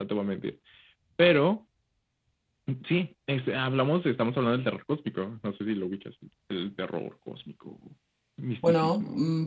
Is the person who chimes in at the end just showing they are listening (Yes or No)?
No